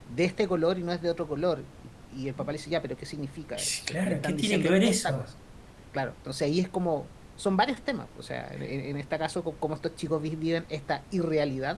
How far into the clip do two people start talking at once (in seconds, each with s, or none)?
3.6 s